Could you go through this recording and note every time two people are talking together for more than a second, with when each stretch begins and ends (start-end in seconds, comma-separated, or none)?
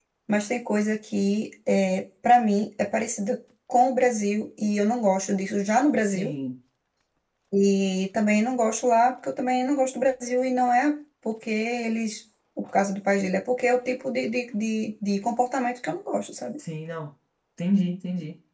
none